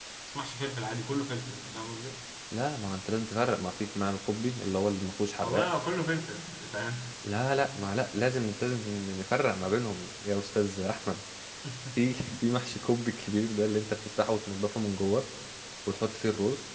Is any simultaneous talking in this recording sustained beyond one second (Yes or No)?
No